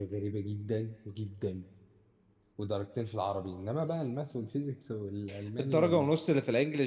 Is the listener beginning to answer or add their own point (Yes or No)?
Yes